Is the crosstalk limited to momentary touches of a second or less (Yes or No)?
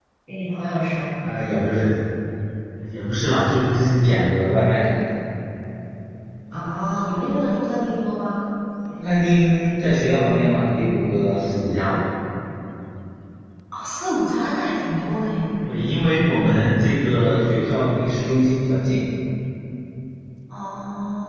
Yes